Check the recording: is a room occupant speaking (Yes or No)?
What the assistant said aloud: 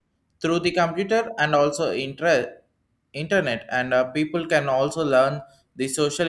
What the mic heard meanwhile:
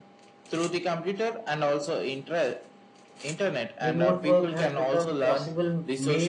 Yes